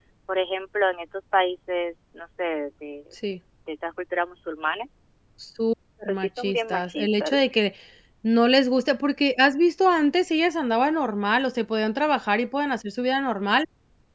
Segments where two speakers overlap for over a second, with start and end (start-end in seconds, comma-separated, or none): 6.1-7.5